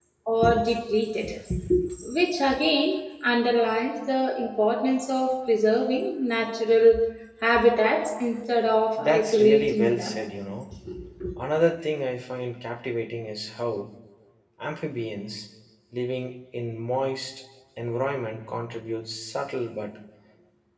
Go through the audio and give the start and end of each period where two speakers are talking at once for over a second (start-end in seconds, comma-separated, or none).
8.9-10.2